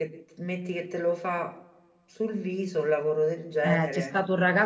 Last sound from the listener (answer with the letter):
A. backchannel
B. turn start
B